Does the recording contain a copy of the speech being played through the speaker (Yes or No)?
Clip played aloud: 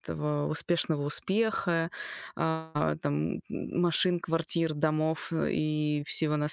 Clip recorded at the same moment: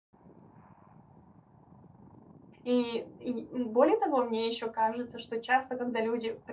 No